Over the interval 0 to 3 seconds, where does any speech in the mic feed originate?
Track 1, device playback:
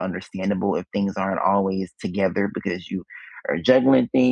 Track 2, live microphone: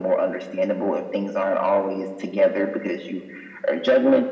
echo only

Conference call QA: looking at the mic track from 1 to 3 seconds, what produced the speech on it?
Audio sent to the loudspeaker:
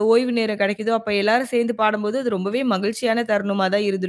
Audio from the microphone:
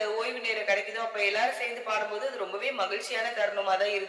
echo only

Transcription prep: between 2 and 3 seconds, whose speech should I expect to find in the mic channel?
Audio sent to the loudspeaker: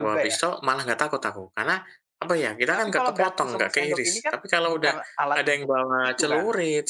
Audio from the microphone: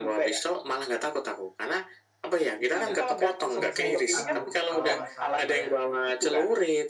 both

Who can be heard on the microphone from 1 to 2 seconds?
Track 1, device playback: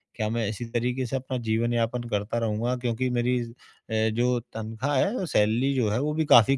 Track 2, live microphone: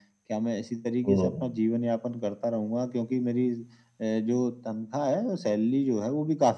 both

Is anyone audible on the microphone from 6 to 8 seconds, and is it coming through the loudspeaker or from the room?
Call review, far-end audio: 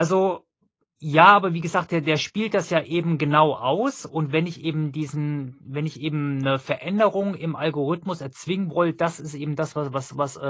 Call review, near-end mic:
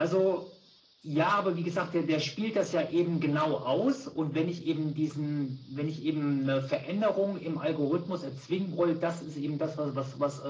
echo only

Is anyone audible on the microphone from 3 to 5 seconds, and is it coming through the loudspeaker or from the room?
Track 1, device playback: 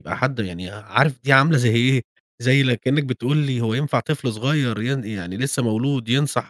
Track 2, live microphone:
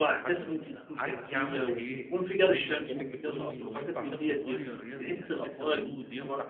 both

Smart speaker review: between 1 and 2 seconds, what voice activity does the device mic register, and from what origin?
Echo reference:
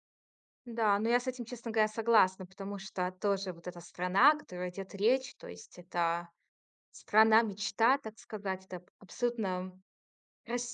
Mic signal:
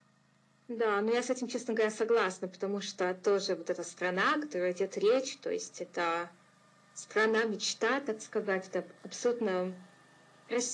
echo only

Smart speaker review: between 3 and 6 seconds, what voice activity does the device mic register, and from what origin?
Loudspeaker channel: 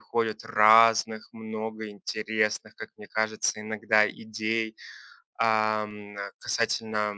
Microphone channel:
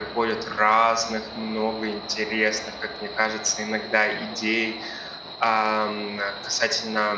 echo only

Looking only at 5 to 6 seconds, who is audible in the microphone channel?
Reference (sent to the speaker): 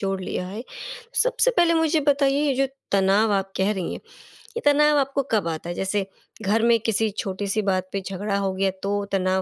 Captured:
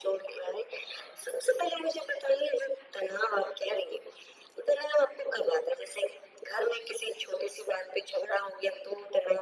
echo only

